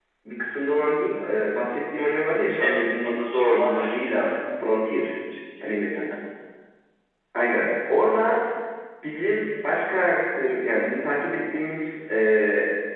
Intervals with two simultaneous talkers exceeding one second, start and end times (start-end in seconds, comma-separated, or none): 2.6-4.1